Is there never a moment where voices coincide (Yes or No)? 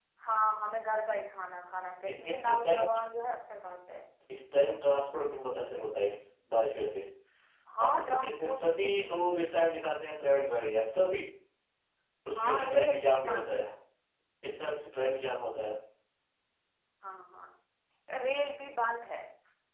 No